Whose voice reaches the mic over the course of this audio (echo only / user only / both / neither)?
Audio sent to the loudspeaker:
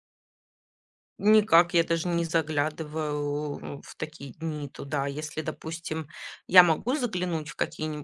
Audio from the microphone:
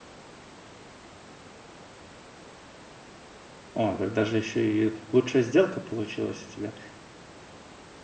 user only